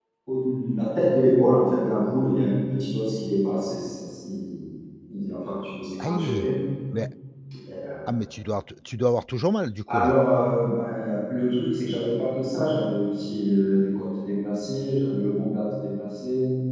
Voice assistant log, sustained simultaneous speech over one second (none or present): none